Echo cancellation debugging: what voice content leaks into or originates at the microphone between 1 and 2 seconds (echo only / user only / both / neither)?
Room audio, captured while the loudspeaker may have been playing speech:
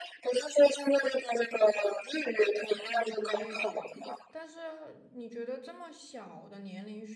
echo only